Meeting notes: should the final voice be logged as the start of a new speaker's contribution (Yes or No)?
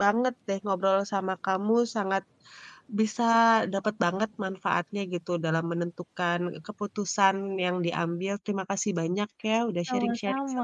Yes